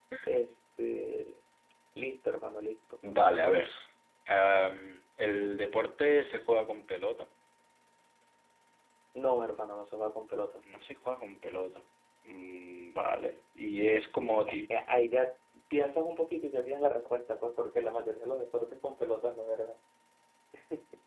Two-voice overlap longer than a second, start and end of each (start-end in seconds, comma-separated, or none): none